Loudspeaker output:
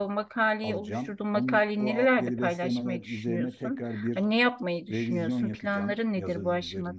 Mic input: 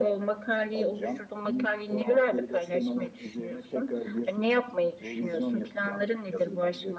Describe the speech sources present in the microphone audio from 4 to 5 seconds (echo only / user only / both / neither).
echo only